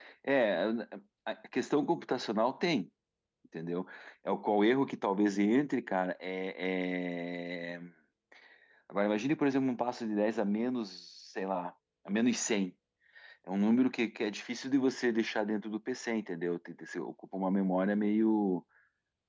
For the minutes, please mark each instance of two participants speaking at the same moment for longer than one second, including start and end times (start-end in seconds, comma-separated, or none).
none